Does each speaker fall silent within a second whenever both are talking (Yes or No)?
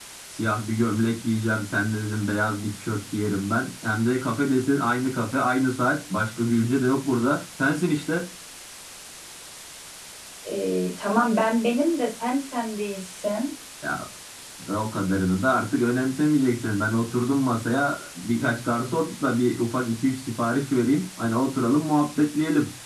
Yes